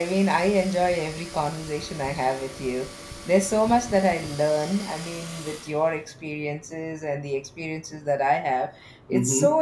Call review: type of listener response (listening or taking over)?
listening